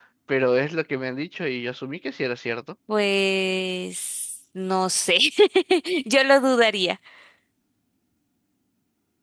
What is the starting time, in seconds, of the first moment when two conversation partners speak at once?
none

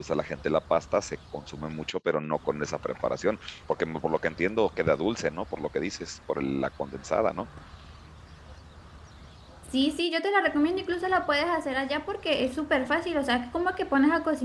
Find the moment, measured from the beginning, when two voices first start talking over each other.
none

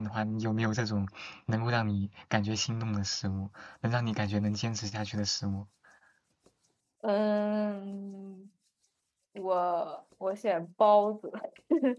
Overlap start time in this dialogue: none

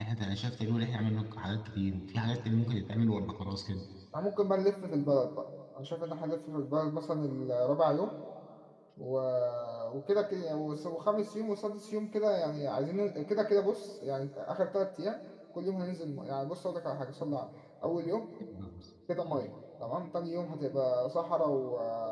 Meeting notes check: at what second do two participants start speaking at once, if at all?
none

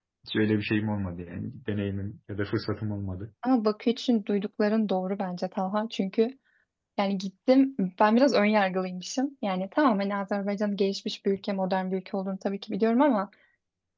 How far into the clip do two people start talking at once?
none

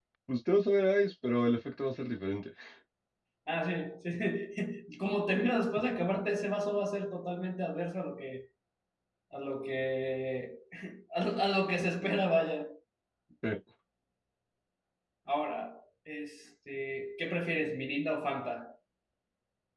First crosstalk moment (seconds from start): none

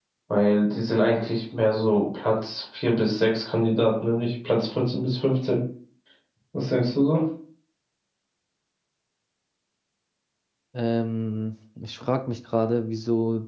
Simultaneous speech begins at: none

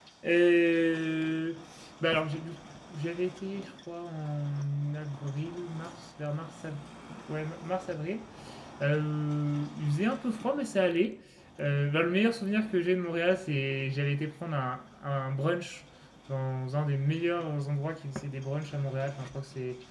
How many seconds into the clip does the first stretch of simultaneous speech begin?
none

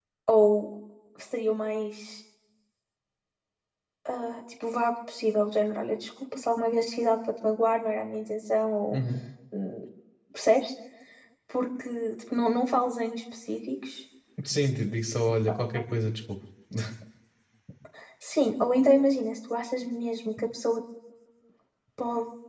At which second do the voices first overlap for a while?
none

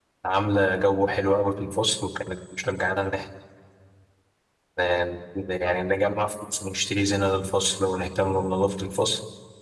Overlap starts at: none

